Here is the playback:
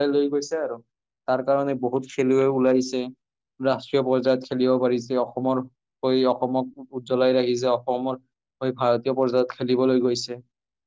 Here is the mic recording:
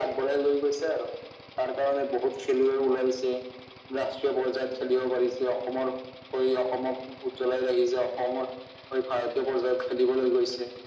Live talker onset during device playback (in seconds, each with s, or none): none